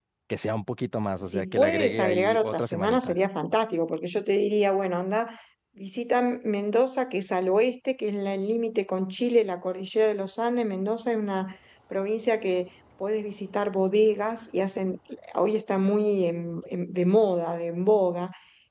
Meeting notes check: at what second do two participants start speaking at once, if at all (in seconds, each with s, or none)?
1.2 s